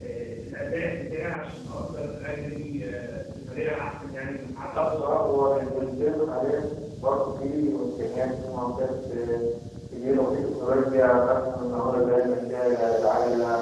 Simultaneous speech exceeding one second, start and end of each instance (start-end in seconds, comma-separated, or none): 4.6-6.1